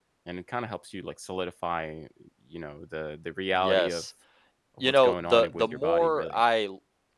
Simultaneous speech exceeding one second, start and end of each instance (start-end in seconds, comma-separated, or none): 4.8-6.4